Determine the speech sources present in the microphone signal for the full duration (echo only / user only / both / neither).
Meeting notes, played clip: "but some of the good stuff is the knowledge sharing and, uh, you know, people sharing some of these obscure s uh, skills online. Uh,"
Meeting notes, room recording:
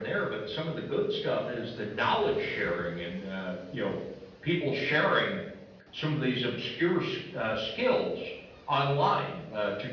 echo only